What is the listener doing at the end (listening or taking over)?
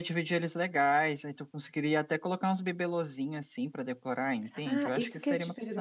taking over